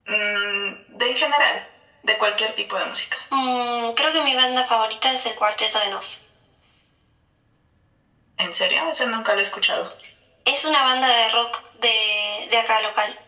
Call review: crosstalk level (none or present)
none